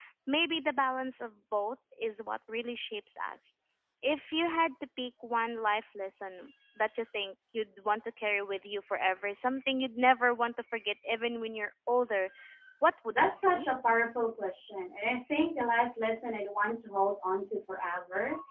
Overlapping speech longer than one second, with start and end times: none

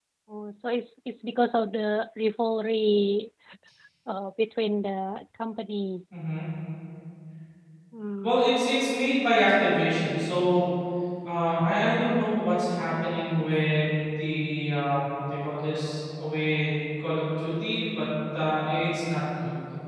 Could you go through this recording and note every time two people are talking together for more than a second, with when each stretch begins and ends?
none

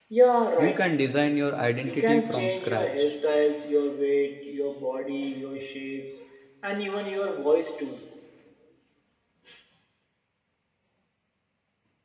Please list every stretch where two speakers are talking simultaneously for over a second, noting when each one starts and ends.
1.8-3.1

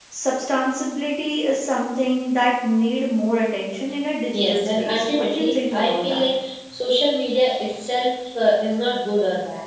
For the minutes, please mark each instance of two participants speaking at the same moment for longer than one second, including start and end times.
4.3-6.3

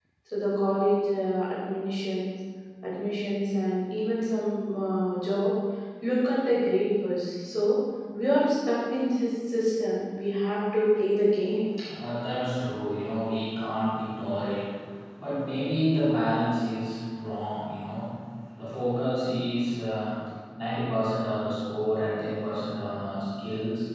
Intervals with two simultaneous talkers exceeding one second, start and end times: none

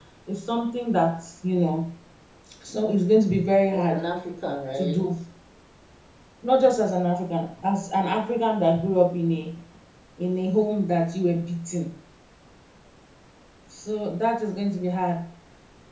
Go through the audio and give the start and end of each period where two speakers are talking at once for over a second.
none

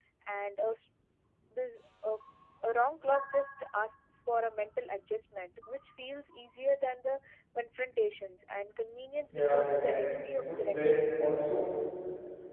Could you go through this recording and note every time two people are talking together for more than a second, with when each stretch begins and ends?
9.3-11.1

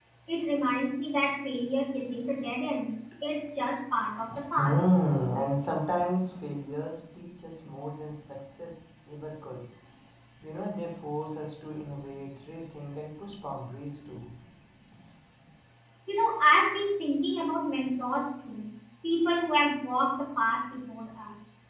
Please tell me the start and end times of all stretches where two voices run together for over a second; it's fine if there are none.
none

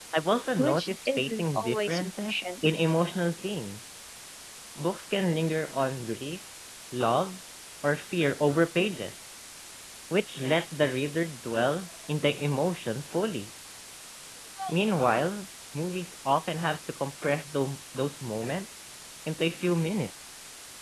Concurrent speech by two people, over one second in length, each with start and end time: 0.6-2.4

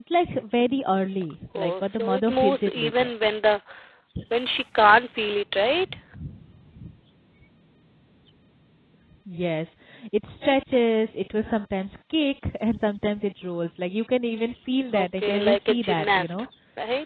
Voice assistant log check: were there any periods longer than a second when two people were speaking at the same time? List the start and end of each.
1.6-3.1, 14.9-16.4

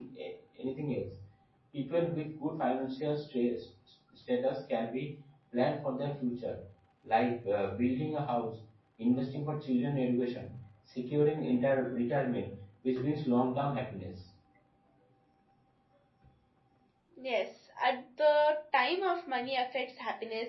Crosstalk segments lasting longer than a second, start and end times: none

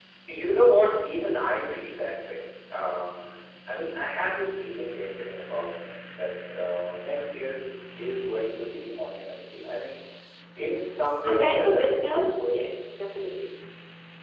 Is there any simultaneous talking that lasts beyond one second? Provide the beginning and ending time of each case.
11.2-12.7

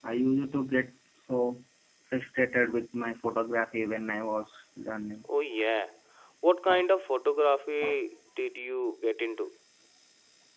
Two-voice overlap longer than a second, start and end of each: none

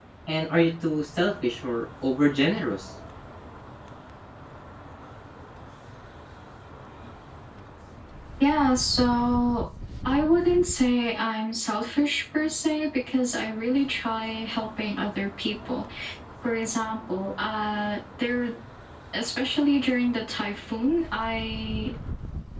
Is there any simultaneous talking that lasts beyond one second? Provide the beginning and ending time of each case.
none

